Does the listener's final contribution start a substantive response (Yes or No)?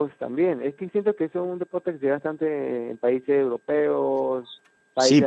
Yes